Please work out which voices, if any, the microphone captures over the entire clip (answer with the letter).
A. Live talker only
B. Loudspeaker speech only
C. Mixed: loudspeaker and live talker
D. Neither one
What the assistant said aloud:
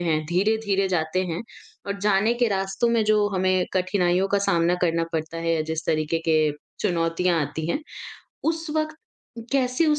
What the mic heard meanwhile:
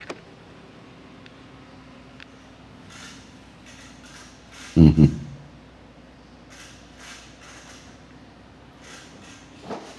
A